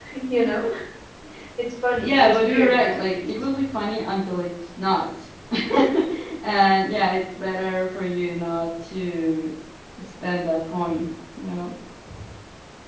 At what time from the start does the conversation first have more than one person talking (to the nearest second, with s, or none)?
2 s